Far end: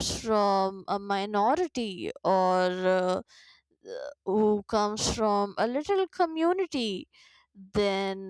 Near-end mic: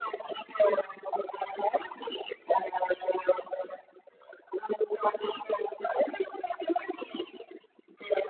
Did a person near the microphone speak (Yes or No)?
No